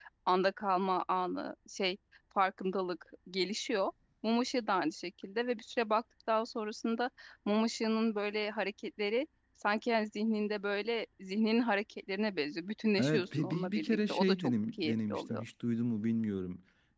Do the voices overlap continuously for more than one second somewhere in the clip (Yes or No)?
Yes